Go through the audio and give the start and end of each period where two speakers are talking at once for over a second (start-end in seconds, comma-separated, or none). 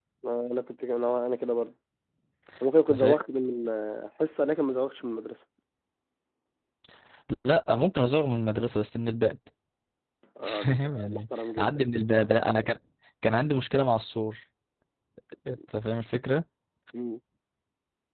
10.4-11.8